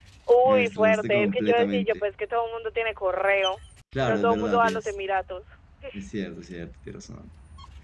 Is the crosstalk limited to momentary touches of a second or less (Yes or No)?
No